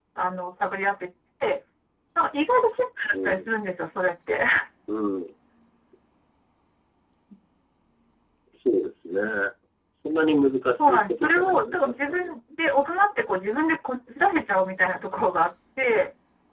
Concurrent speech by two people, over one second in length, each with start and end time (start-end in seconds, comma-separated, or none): 10.8-12.3